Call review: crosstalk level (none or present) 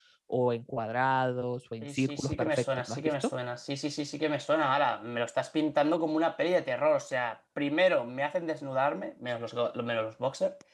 present